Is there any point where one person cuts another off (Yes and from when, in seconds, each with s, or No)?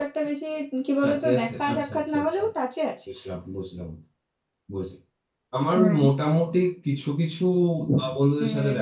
Yes, from 1.0 s